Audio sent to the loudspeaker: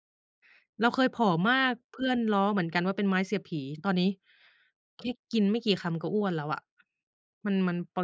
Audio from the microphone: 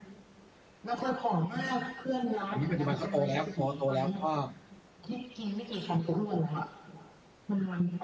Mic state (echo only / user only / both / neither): both